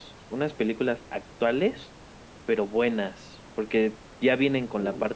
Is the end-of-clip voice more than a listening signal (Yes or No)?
No